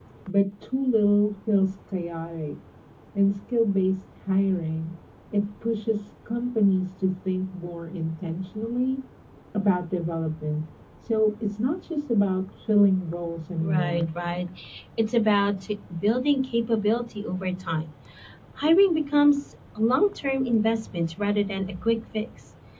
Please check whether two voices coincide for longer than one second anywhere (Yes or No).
No